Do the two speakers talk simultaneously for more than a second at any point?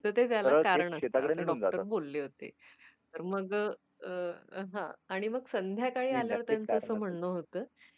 Yes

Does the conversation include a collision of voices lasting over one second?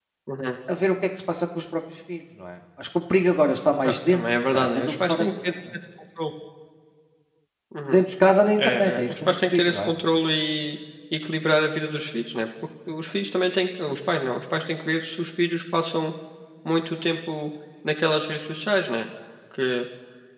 Yes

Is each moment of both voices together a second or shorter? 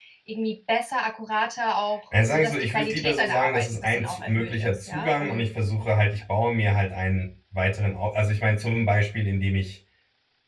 No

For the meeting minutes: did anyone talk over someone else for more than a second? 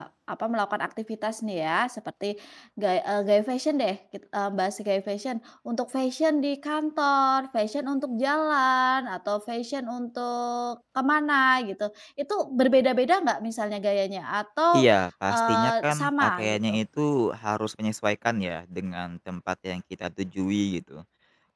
Yes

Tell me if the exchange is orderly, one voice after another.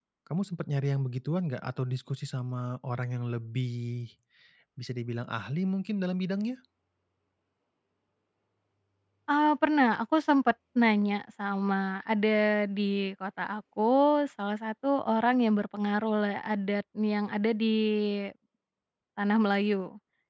Yes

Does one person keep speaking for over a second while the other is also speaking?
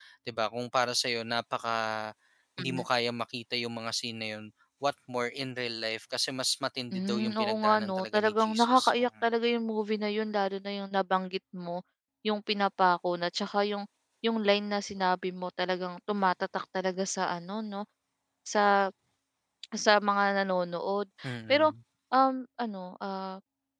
Yes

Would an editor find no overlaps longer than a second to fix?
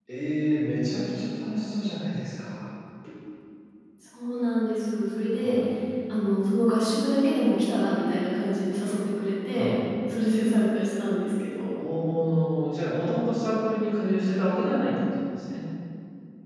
Yes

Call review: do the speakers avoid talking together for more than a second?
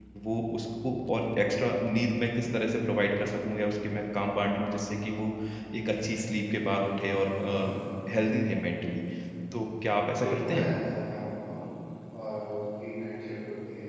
Yes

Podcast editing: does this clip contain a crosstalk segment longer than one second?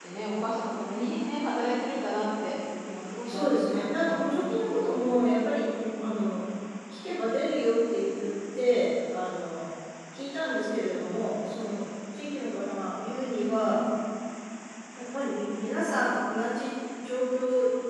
Yes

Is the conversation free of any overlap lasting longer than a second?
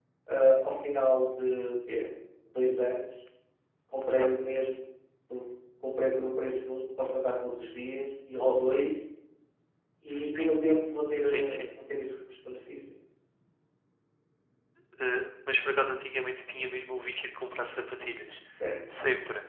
Yes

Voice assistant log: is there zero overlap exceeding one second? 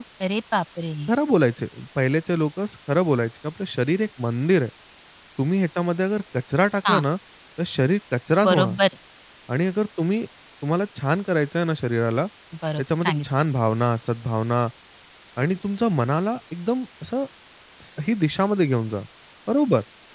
Yes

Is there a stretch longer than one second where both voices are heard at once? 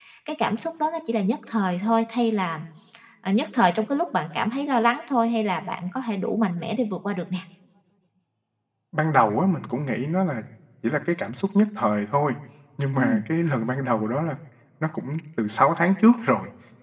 No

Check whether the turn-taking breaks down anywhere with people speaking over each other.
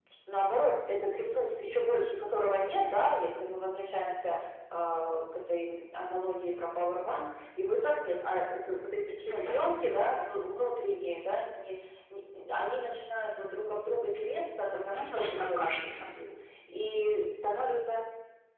Yes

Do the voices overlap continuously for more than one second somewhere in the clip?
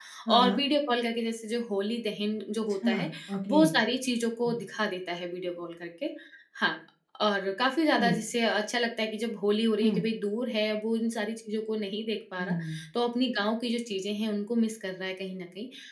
No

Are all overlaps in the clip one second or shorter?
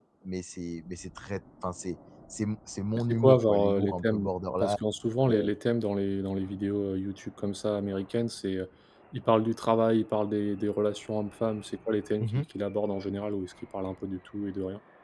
No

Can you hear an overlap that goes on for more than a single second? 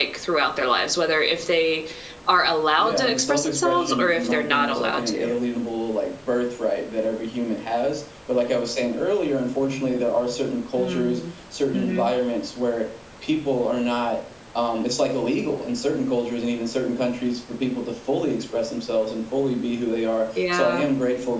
Yes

